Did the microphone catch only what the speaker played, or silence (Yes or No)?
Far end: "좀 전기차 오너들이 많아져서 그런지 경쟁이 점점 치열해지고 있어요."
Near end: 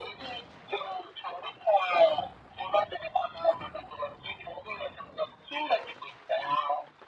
Yes